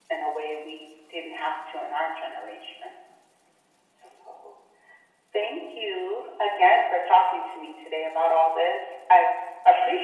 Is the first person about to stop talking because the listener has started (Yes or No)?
Yes